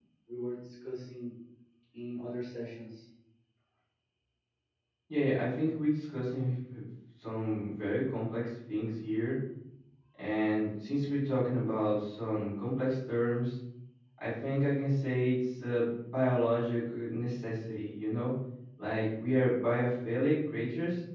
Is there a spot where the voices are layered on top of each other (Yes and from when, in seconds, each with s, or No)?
No